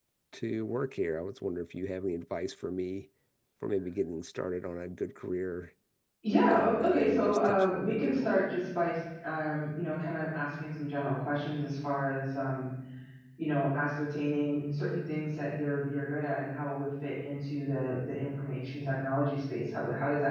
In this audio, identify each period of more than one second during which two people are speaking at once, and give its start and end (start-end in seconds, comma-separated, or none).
6.5-8.3